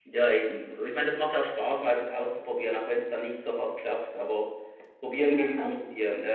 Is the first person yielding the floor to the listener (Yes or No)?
No